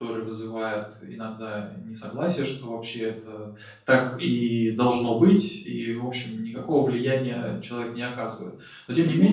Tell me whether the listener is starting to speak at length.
No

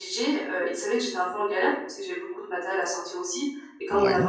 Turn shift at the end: No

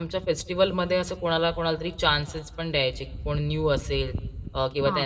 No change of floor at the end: Yes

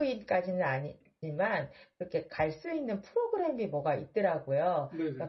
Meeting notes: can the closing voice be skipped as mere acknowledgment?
Yes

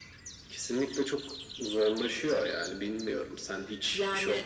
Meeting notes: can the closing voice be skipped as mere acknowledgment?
Yes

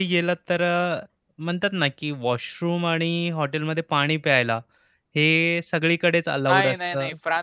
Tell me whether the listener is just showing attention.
No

